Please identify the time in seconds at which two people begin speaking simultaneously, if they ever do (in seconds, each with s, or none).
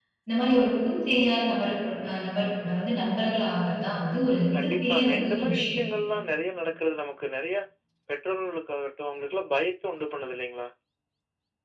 4.5 s